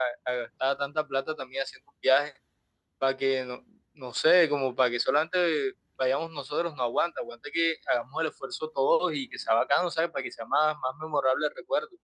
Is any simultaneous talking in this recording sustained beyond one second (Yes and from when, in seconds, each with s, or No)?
No